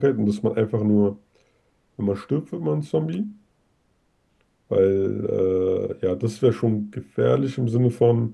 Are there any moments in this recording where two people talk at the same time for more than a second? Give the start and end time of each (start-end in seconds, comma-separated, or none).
none